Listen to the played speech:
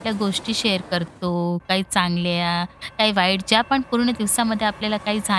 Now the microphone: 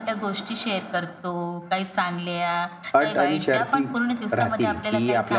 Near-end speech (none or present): present